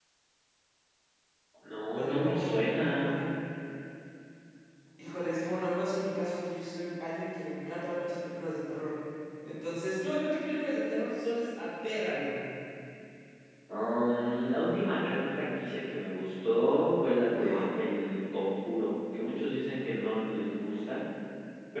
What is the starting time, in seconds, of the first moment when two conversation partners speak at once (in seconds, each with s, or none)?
2.0 s